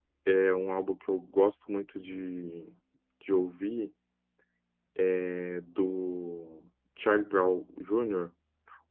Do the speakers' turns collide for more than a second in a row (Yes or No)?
No